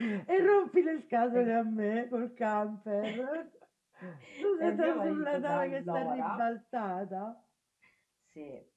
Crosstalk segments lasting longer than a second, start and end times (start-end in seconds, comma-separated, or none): 4.7-6.3